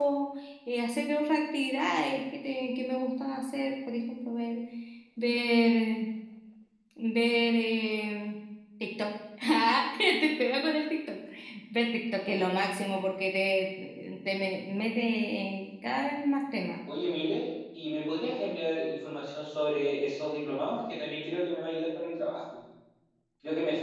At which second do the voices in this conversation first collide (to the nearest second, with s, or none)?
none